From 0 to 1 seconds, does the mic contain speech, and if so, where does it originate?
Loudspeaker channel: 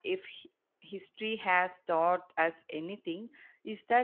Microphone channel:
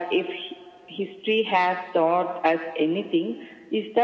echo only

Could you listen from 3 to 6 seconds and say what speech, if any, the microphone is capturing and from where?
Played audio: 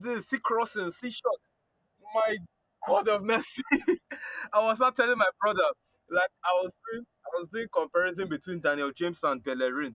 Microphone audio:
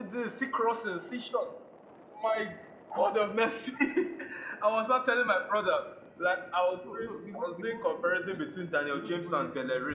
echo only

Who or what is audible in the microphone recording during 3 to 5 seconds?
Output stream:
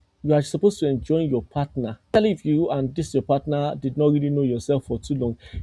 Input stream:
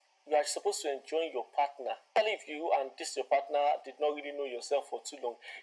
echo only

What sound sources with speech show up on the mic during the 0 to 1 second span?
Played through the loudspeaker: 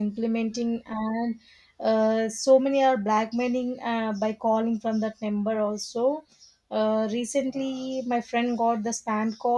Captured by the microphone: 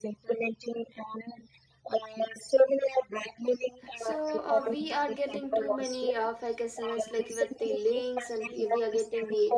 echo only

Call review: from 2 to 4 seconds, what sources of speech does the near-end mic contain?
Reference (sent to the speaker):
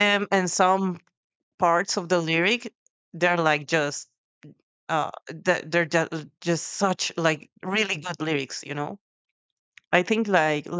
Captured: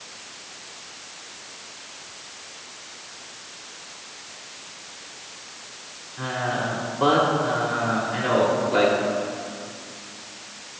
neither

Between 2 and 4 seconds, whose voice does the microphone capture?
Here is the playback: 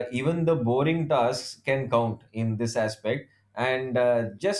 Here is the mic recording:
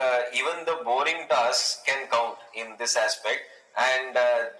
echo only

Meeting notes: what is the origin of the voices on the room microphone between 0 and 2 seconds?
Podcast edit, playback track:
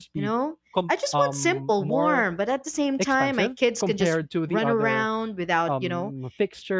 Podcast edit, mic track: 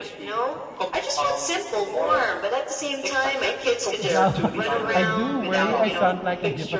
echo only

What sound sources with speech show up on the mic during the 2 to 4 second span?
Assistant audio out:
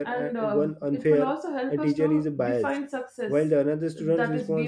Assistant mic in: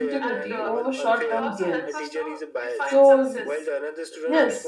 both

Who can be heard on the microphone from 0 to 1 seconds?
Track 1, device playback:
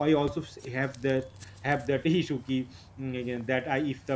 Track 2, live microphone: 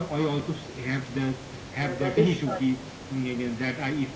echo only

